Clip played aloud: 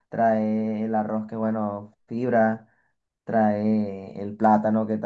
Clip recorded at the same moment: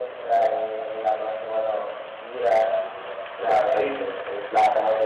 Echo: present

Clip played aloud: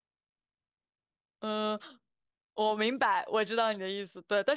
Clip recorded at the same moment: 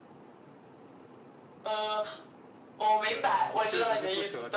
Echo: present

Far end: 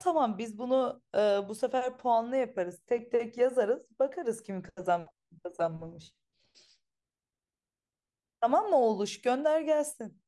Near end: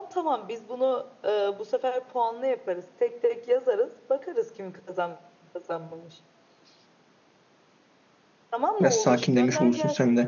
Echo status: present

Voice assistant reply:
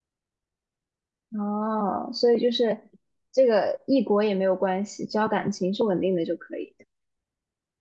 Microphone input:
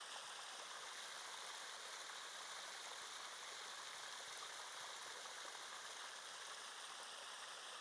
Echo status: none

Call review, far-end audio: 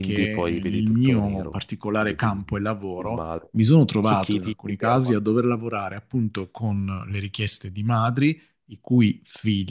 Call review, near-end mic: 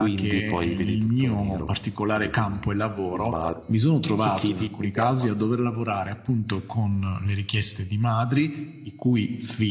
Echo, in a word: present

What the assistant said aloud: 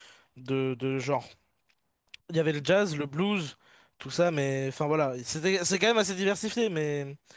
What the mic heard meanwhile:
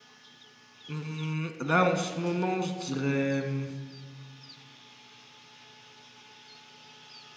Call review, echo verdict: none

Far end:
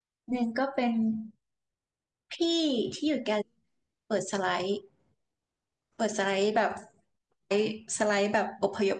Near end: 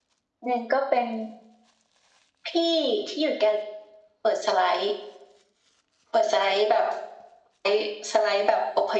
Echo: present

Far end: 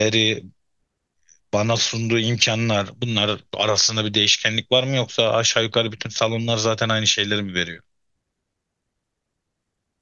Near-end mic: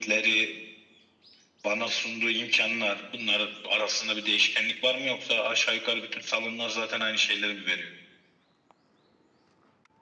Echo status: present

